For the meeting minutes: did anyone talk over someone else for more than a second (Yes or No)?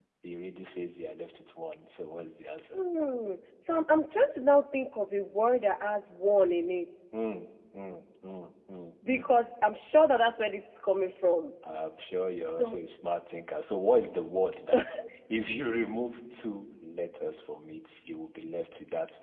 No